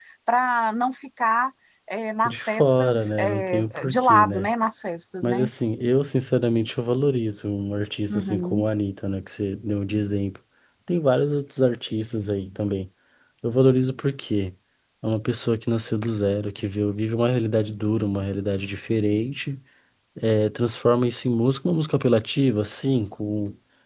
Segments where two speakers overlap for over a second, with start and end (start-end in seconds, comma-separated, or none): 2.2-4.5